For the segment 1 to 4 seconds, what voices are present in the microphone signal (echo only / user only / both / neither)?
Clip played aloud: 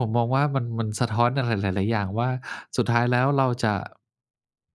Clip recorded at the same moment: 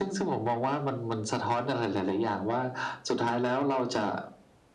echo only